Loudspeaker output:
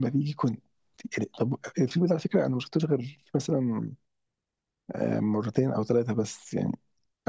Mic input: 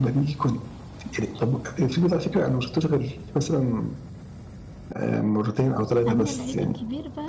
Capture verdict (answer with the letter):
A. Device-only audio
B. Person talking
B